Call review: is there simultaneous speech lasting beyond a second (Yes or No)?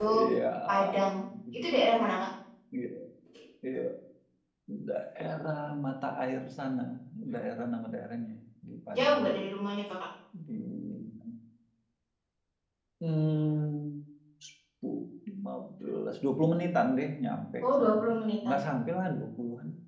No